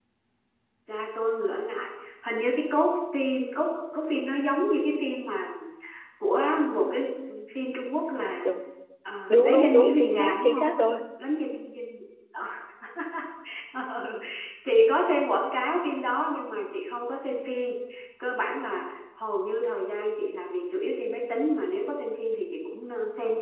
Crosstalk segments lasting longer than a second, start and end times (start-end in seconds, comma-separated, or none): 9.3-10.7